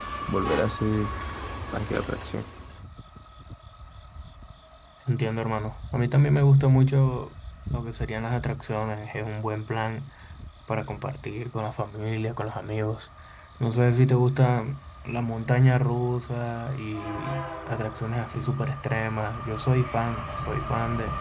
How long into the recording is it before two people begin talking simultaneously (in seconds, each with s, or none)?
none